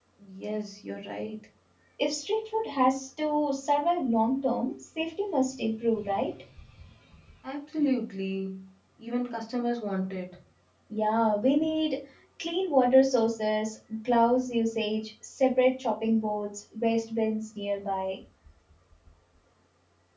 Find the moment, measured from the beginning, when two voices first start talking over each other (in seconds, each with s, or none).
none